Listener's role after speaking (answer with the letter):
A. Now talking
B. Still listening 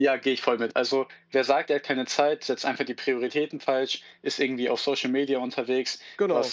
B